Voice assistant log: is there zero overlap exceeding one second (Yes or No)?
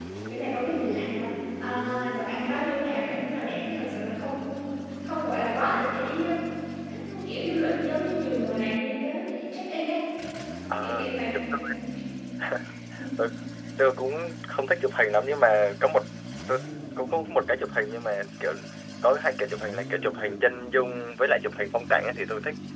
Yes